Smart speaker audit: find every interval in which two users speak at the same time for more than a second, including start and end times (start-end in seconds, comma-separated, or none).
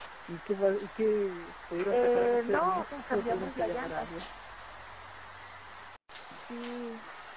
1.9-4.1